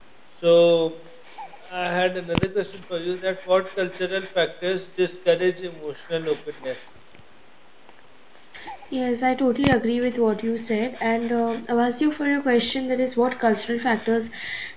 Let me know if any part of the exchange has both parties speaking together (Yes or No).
No